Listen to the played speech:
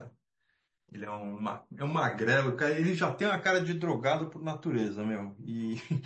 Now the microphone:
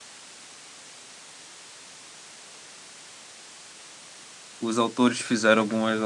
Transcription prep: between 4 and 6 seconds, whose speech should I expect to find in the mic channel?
user only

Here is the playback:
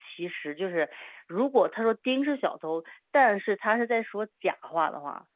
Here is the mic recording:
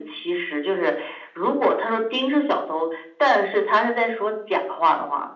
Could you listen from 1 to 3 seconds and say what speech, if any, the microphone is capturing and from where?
echo only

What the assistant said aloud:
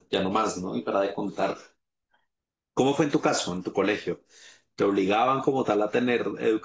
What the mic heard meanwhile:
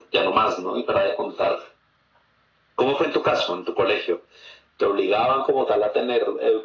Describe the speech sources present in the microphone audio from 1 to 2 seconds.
echo only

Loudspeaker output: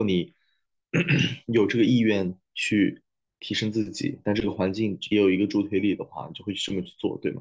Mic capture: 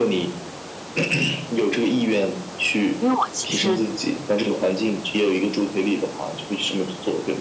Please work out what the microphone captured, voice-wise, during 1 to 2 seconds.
echo only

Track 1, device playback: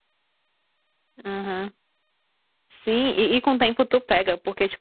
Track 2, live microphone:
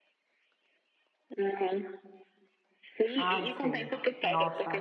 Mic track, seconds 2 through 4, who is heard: both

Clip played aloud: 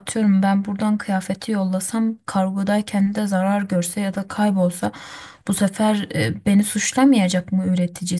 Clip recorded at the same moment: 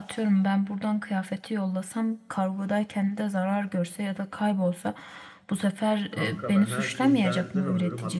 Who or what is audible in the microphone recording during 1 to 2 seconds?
echo only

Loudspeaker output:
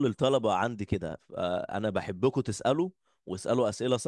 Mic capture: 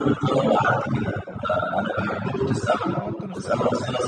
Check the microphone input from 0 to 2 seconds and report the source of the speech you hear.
echo only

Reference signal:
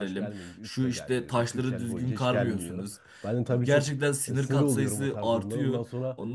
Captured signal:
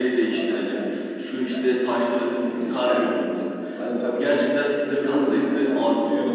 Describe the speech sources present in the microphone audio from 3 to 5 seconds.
echo only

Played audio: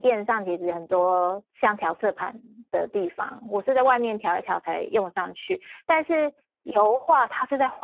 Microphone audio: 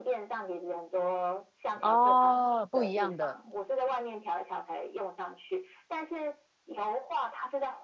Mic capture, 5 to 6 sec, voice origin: echo only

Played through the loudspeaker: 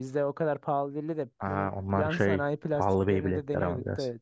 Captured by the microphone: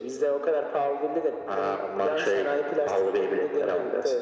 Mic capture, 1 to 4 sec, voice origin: echo only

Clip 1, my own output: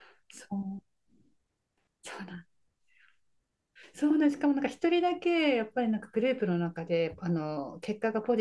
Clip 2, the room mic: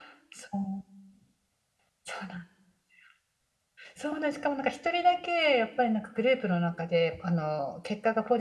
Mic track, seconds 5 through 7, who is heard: echo only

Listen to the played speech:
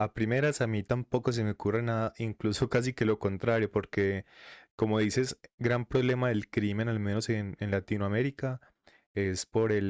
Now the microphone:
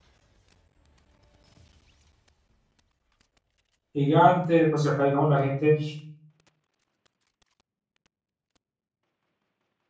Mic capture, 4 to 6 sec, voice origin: user only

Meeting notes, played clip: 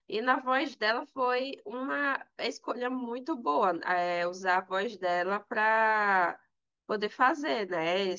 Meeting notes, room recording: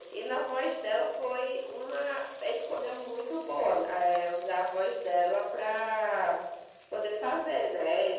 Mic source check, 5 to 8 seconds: echo only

